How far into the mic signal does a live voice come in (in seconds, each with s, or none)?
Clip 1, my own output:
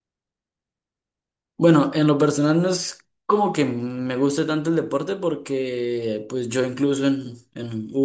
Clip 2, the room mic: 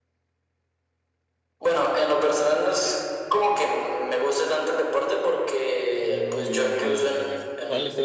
5.9 s